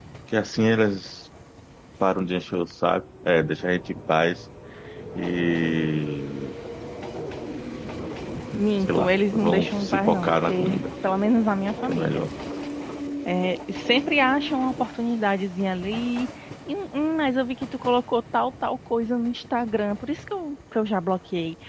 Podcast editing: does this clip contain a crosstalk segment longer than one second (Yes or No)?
Yes